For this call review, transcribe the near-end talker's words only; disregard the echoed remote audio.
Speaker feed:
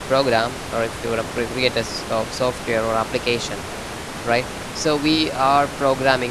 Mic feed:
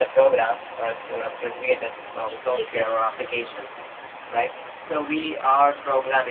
yes exactly

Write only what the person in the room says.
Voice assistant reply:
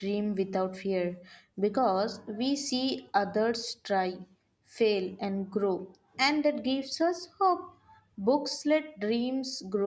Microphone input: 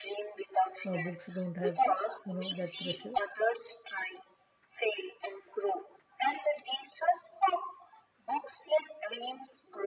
uh, books don't have you know that pressure

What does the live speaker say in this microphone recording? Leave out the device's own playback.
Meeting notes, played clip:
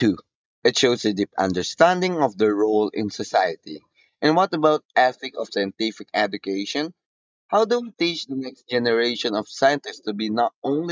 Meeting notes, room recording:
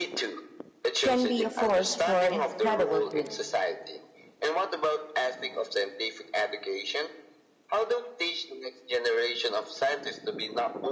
can be a force for incredible good.

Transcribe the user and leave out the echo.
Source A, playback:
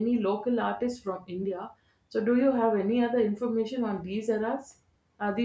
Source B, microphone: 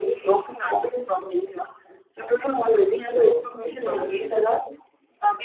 so uh, channel v

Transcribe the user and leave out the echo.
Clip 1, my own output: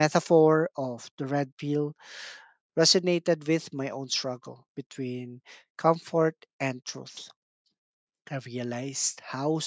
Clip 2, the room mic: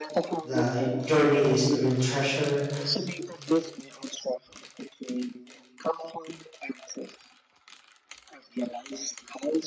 The journey is the real treasure,

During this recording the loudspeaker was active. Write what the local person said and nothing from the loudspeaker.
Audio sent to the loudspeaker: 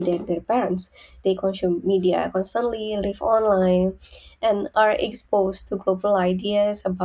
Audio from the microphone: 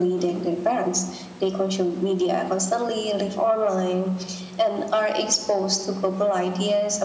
none

